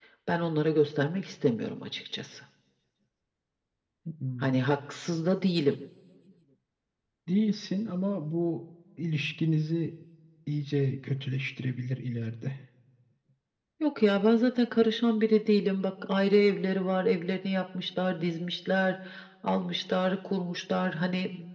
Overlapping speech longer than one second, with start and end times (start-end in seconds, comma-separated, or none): none